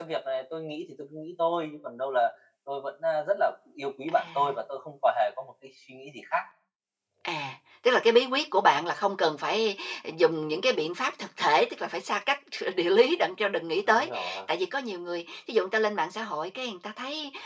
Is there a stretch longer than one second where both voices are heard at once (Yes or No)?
No